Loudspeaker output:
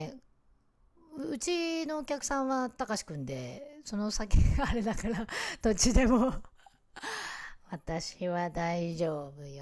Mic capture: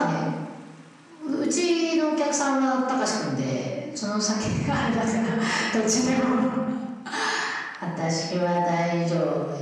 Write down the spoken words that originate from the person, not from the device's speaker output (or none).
none